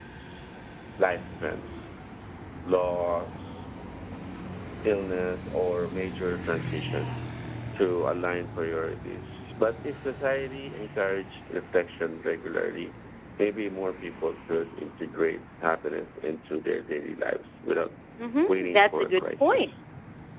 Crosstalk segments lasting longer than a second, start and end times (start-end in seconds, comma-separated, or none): 18.5-19.7